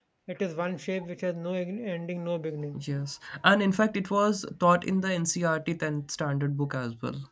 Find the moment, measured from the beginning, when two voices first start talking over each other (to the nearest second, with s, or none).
none